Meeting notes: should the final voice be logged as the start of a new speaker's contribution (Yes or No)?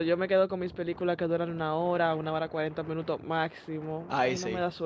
Yes